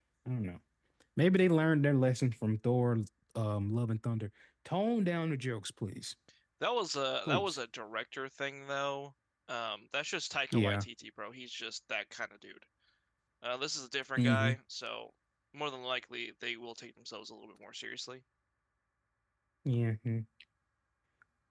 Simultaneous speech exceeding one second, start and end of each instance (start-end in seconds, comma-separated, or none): none